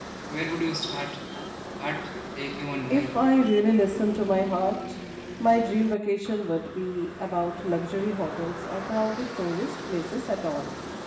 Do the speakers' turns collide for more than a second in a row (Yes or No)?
No